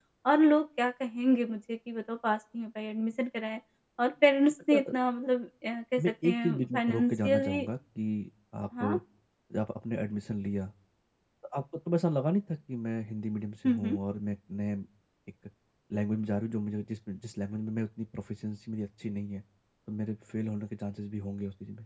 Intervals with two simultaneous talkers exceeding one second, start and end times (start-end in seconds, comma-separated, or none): 6.0-7.6